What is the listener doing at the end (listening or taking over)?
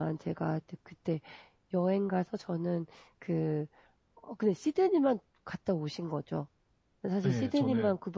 listening